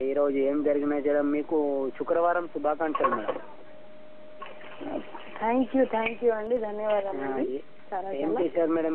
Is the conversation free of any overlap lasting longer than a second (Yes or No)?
Yes